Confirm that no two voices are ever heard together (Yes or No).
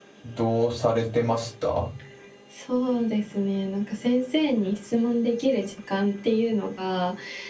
Yes